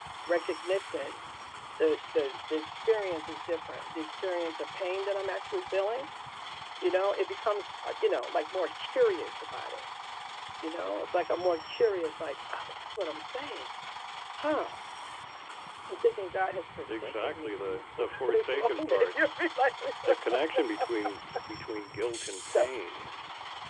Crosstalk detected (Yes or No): Yes